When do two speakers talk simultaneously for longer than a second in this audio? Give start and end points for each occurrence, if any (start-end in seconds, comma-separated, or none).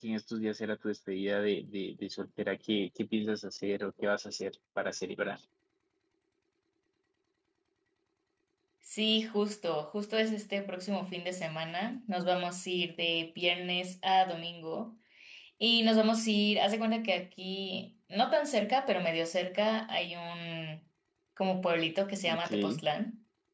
none